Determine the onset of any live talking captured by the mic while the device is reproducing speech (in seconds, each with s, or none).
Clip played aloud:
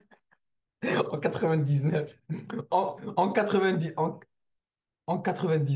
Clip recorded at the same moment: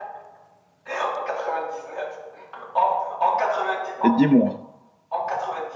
4.0 s